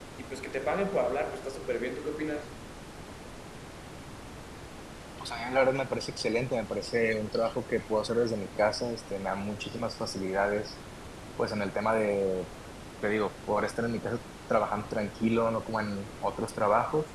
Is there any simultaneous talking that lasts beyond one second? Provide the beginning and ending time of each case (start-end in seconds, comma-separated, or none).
none